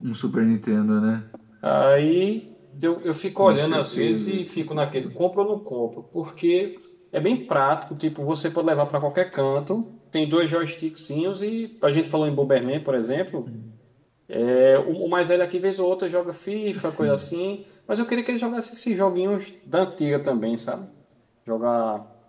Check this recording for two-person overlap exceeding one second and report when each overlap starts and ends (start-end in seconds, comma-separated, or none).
3.4-5.2